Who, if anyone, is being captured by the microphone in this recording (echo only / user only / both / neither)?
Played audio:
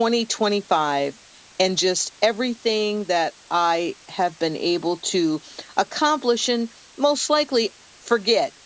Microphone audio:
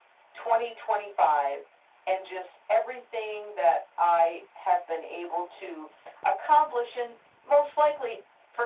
echo only